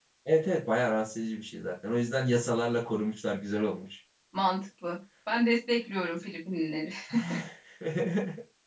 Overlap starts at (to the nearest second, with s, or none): none